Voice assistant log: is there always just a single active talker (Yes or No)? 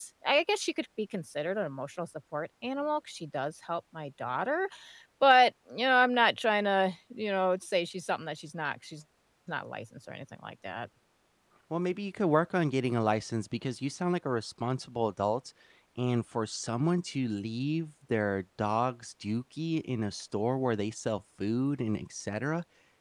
Yes